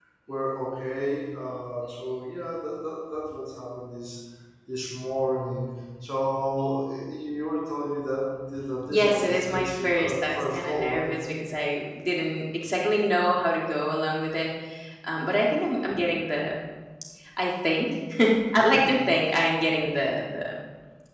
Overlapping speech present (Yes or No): Yes